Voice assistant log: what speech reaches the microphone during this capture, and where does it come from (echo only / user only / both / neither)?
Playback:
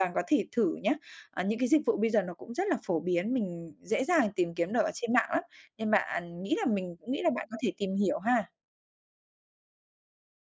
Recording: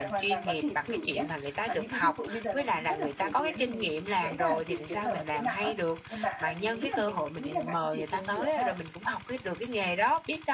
both